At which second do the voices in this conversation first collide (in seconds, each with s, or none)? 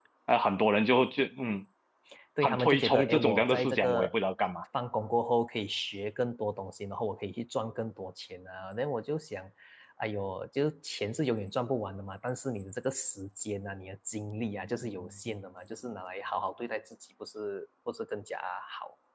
2.4 s